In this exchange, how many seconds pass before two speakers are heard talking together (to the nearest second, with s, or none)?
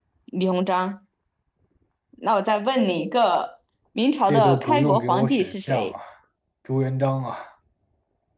4 s